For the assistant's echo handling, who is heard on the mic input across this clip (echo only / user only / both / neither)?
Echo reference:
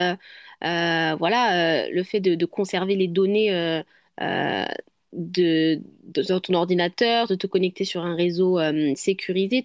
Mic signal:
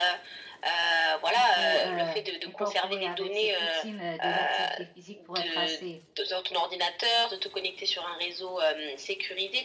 both